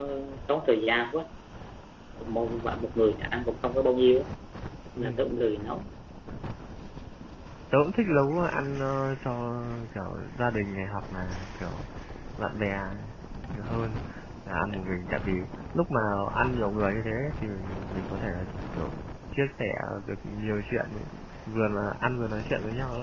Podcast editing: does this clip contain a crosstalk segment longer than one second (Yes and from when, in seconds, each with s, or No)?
No